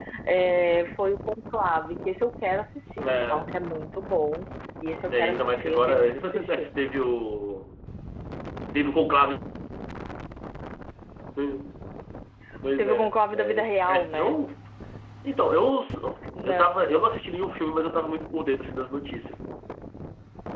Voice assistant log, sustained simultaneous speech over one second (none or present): present